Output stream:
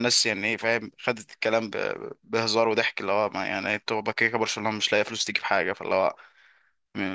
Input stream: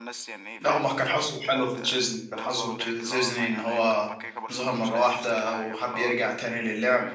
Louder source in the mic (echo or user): user